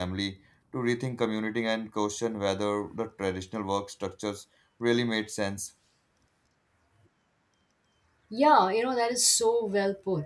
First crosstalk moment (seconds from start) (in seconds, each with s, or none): none